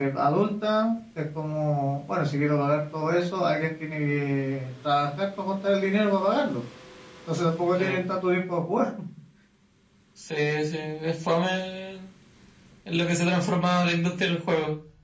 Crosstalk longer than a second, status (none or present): none